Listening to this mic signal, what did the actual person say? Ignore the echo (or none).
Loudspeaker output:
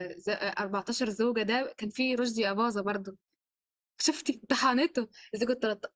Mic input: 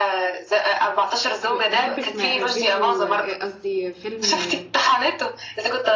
ب- بحب اسمع فيديو آه، قصدي فيلم آه،